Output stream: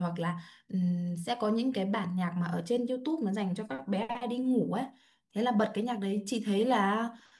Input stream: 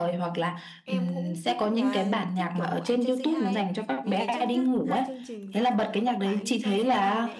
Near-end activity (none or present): present